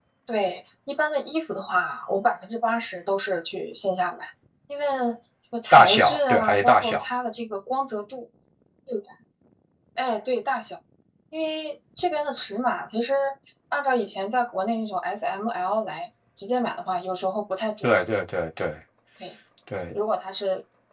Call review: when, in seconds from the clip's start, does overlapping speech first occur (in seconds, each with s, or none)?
5.7 s